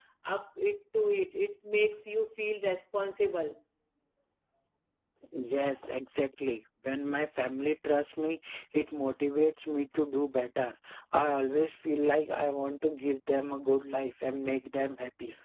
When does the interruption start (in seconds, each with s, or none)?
none